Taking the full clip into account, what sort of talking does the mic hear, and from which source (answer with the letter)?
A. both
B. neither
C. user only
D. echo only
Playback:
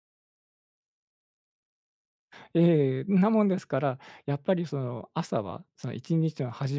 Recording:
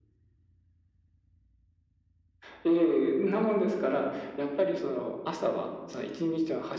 D